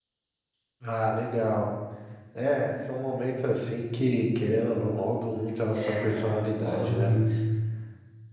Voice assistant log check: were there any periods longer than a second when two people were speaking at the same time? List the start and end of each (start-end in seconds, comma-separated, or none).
5.7-7.1